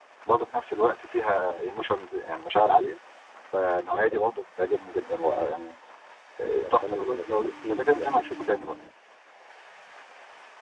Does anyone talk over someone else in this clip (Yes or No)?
Yes